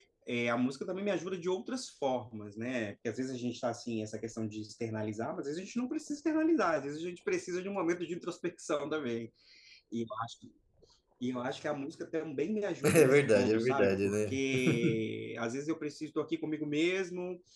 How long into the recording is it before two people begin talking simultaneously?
12.8 s

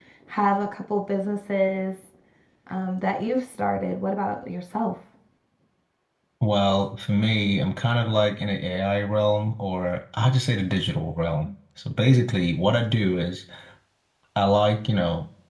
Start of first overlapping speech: none

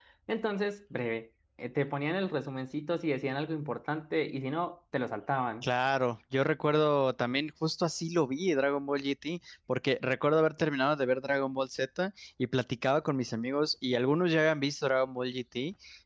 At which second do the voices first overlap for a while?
none

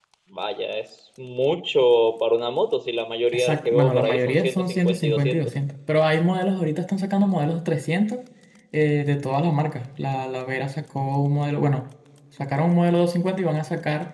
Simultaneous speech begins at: 3.3 s

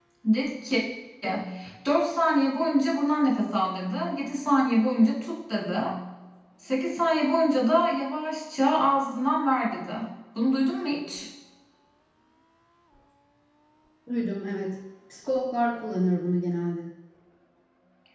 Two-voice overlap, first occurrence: none

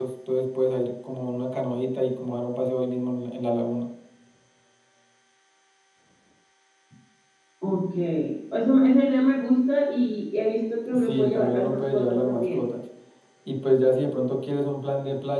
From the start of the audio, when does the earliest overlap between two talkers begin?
10.9 s

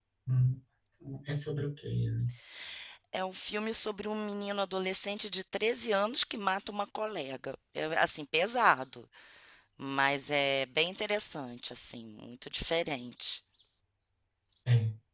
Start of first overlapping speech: none

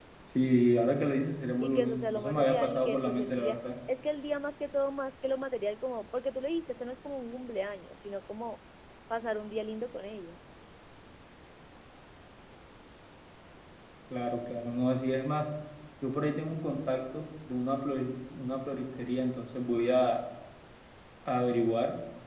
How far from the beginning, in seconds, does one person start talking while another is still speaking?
1.6 s

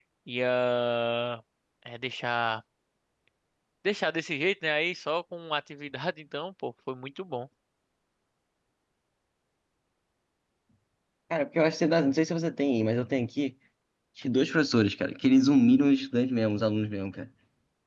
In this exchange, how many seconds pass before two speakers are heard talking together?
none

